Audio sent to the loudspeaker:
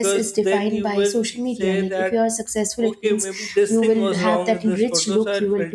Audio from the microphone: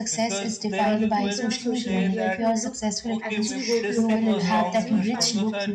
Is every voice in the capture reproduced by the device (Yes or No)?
No